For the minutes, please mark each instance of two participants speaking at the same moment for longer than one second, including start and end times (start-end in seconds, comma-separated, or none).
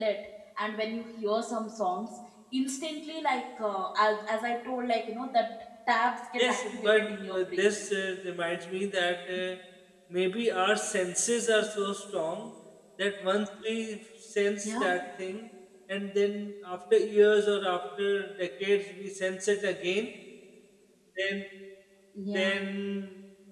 6.4-7.7